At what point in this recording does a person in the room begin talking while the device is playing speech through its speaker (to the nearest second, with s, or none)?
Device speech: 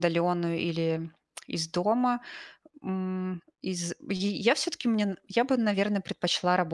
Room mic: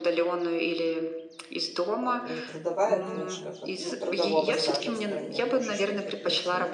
2 s